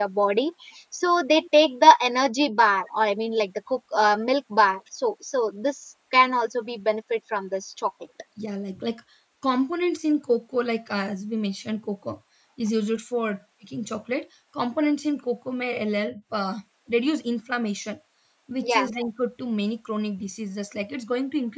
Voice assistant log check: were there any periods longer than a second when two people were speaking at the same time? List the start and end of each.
none

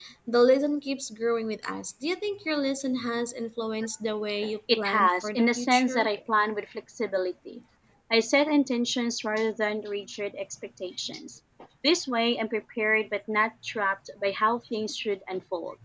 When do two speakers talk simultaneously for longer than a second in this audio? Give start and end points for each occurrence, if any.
4.8-6.1

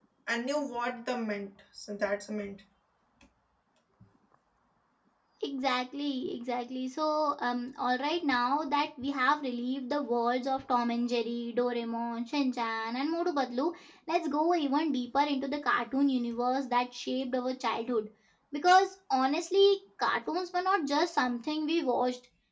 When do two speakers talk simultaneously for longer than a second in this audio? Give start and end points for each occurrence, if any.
none

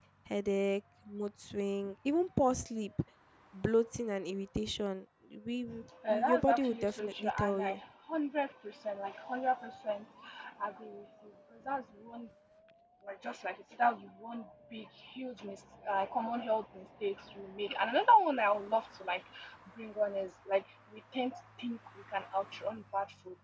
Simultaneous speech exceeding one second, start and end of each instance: 6.1-7.8

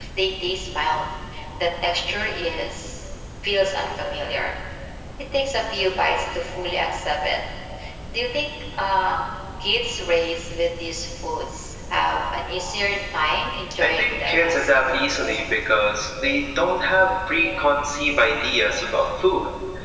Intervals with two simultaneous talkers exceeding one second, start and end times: 13.8-15.2

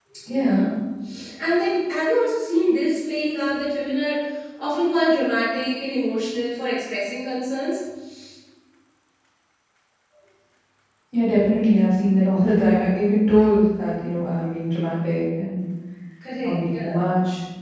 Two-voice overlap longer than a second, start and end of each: none

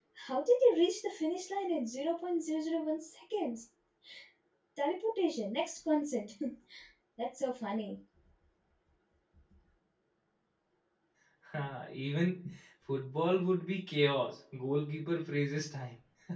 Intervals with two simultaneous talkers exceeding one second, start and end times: none

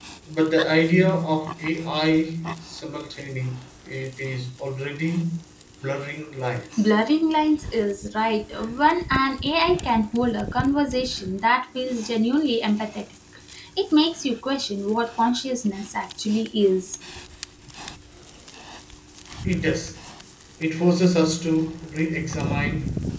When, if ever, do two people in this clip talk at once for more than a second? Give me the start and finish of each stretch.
none

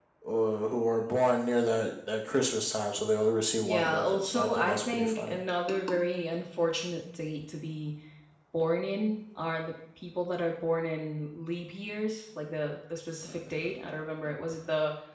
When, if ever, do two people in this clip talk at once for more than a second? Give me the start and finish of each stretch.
3.6-5.4

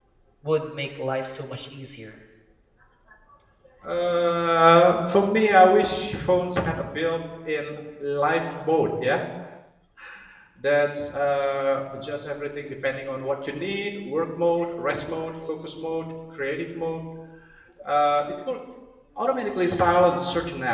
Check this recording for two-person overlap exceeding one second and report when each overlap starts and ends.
none

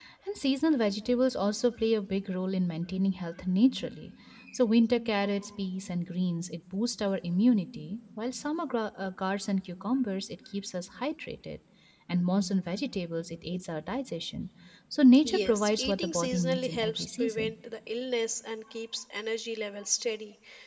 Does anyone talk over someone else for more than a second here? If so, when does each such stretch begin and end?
15.2-17.5

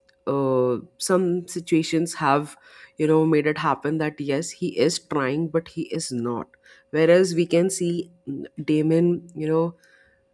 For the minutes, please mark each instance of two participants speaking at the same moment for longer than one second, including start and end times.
none

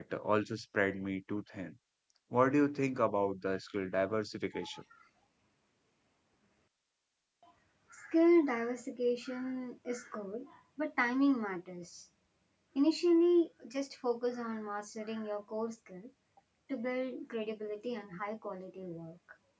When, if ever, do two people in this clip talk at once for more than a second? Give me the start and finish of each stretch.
none

